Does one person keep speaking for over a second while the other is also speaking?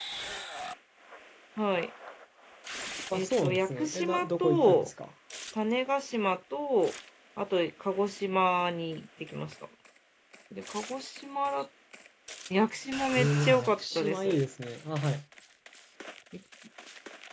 Yes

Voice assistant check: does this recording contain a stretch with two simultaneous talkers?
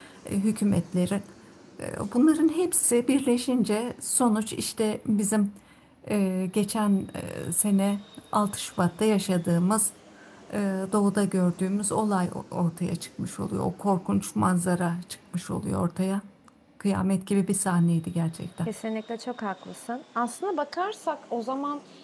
No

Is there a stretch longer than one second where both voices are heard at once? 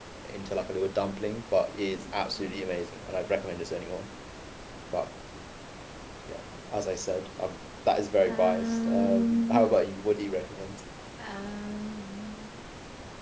Yes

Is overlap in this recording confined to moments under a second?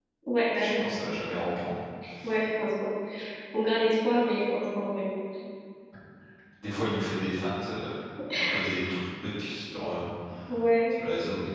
Yes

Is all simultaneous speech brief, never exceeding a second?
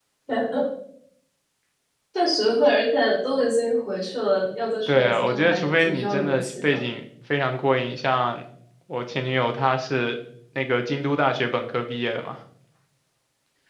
No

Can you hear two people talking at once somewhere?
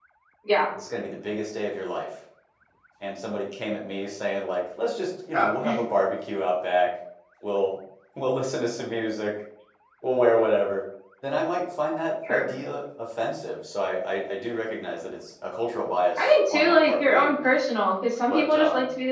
Yes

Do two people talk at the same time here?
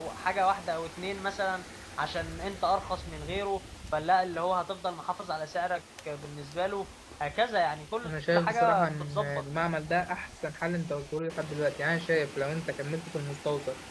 Yes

